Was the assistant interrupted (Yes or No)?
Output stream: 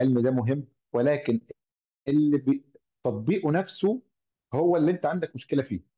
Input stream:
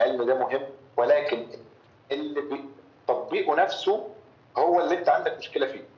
No